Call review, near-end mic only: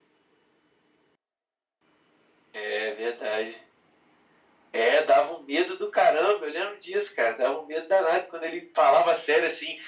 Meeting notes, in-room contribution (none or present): none